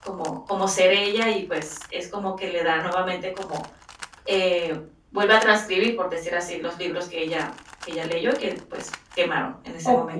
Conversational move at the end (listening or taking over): taking over